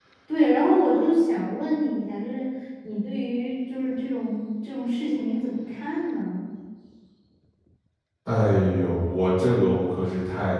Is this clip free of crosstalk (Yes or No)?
Yes